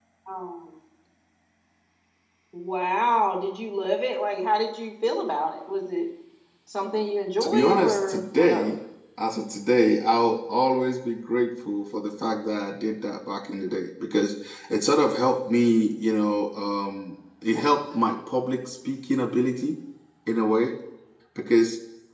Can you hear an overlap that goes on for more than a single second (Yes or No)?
Yes